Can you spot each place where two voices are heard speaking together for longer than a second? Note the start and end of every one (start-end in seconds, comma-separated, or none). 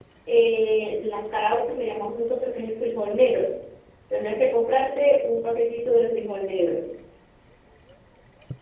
none